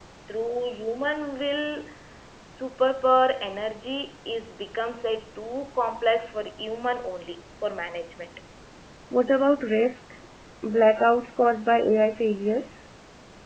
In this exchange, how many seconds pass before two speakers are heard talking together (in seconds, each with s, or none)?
none